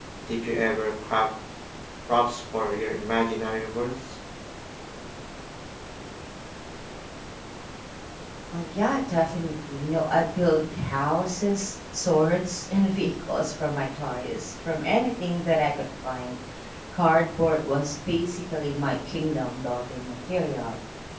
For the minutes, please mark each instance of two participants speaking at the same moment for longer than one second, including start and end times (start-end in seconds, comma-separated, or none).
none